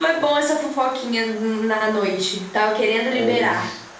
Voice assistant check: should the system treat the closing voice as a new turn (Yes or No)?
Yes